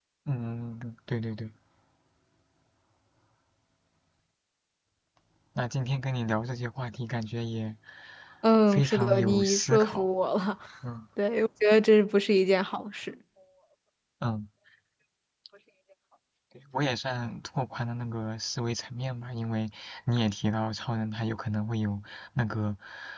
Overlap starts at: 8.7 s

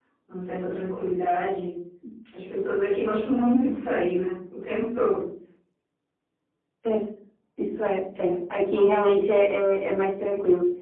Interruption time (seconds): none

